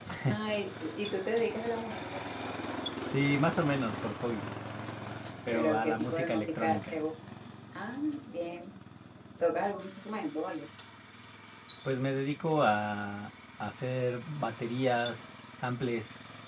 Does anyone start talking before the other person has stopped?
Yes, from 5.5 s

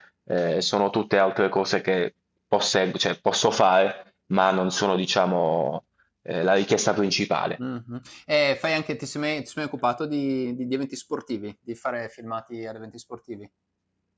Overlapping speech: No

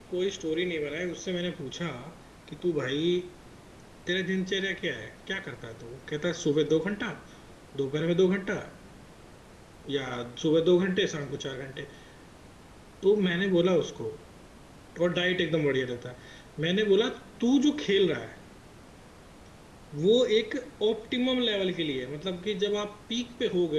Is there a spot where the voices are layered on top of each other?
No

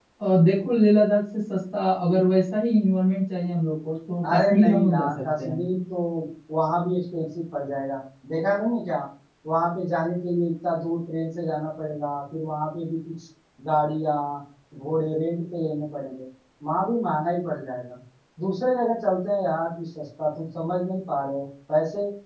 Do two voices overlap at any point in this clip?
Yes, from 4.2 s

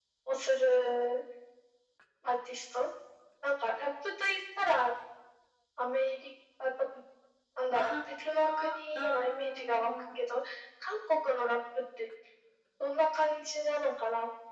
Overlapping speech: Yes, from 7.7 s

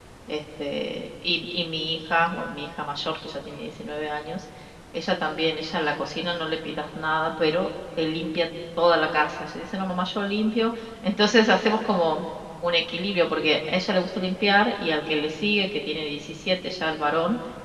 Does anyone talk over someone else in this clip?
No

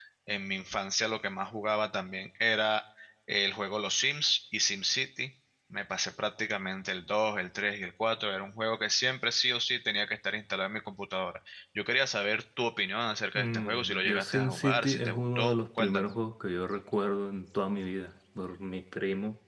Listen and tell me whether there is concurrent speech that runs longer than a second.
Yes, from 13.4 s

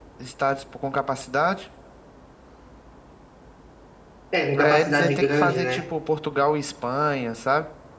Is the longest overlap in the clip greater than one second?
Yes, from 4.6 s

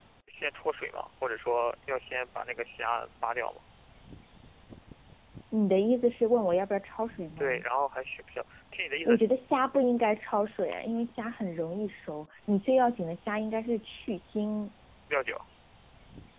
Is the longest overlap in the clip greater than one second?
No

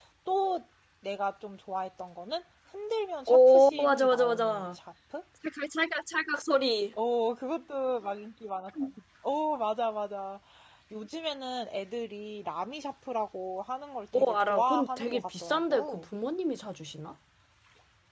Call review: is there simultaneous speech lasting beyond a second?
Yes, from 3.3 s

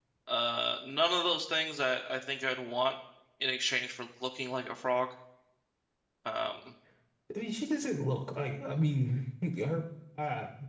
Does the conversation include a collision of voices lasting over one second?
No

